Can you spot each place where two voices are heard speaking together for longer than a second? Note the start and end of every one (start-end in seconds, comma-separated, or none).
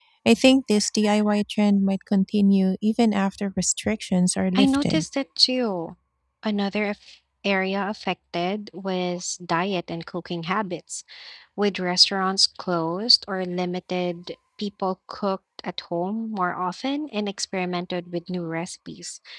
none